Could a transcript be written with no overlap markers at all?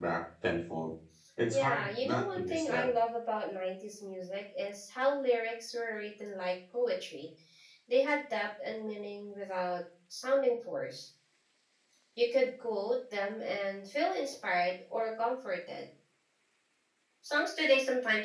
No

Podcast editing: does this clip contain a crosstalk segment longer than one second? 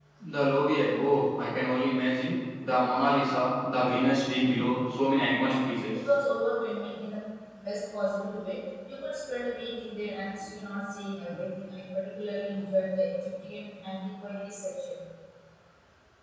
No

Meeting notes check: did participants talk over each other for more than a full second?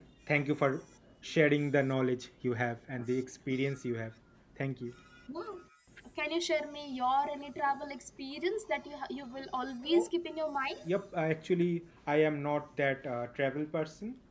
No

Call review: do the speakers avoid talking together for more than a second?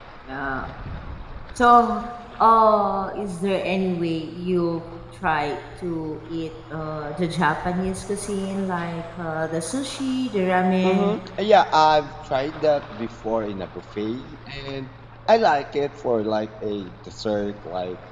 Yes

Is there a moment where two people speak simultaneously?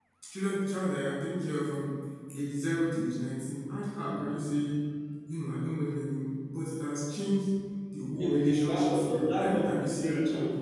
Yes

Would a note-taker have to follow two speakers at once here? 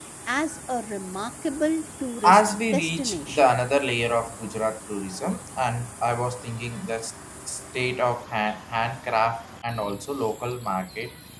Yes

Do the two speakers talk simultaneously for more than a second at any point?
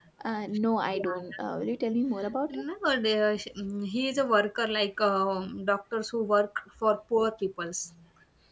No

